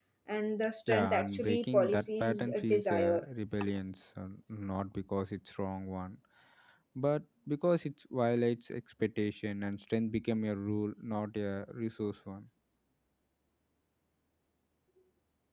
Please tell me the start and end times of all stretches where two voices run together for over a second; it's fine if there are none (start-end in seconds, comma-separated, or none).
0.9-3.2